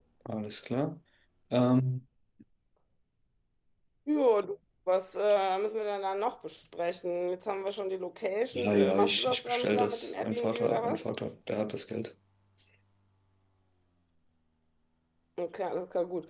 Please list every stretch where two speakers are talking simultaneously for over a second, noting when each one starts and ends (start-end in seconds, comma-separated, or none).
8.5-11.0